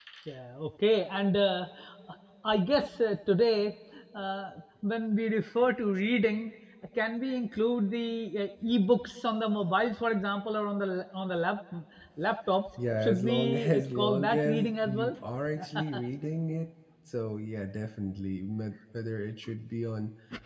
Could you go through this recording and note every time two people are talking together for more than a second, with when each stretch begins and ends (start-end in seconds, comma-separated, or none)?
13.0-15.1